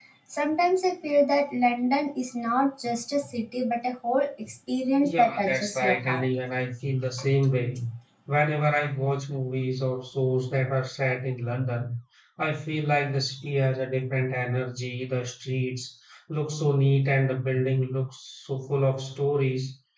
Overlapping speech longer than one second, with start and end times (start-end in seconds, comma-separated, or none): 5.0-6.2